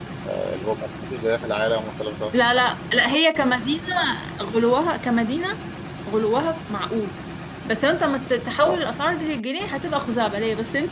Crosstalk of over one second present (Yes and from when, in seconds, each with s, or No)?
No